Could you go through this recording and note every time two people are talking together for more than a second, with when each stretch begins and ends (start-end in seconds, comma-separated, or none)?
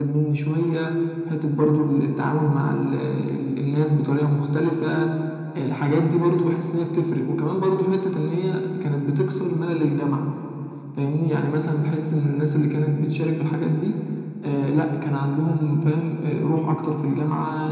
none